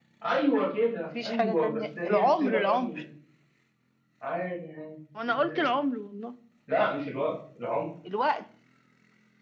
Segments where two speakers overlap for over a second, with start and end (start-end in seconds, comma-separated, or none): 1.1-3.0